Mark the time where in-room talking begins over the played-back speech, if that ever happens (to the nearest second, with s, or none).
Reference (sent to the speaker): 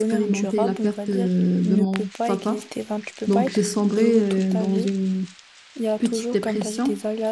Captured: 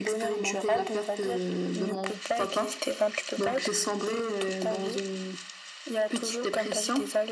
none